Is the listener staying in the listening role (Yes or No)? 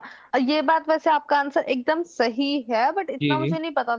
Yes